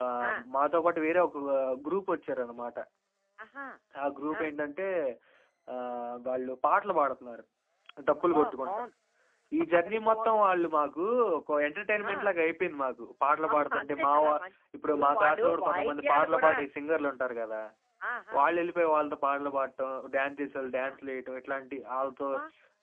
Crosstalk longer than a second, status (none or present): present